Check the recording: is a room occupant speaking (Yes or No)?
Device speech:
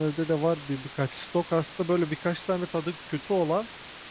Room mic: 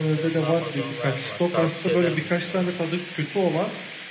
Yes